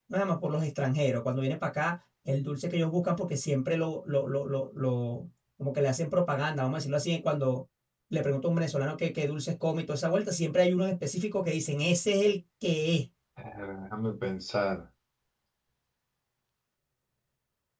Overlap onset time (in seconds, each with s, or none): none